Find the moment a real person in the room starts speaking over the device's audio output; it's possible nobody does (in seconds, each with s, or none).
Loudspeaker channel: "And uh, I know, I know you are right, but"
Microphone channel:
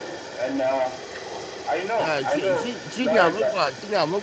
1.9 s